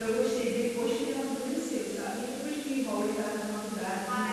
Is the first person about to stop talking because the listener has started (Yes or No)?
Yes